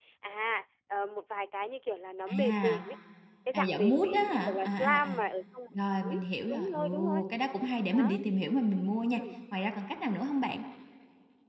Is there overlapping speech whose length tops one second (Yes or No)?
Yes